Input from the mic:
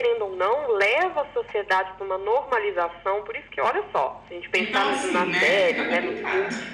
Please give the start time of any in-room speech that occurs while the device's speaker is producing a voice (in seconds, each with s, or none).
4.5 s